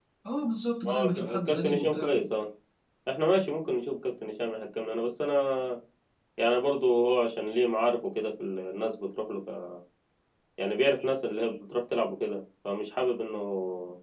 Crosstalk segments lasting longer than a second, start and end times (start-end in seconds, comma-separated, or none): 0.8-2.2